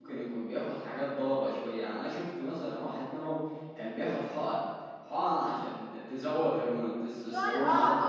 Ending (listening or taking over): taking over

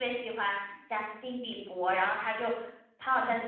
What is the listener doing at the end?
listening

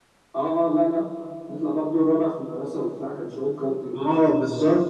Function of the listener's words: taking over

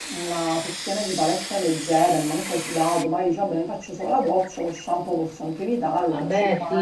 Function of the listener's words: taking over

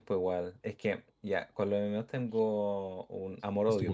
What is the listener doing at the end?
listening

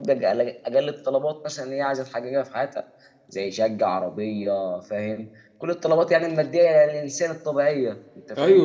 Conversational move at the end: taking over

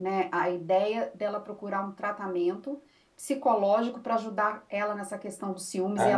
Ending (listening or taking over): taking over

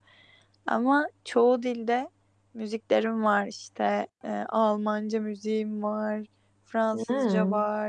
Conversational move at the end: listening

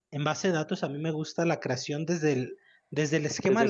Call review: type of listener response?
listening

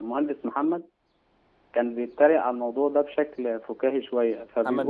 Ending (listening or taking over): listening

